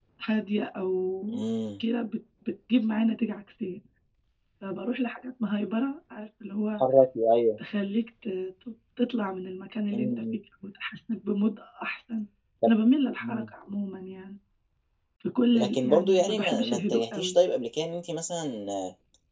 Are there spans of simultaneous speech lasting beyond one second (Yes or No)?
Yes